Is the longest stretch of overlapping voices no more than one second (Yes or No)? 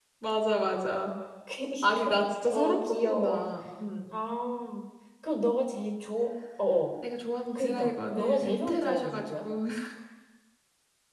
No